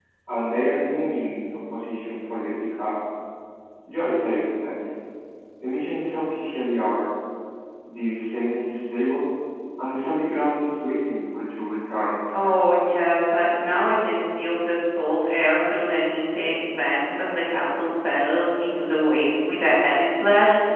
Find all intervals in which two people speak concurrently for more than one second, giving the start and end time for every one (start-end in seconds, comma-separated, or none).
none